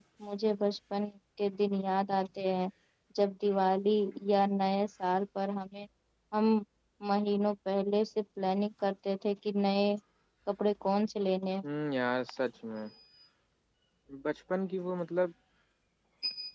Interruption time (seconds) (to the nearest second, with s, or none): none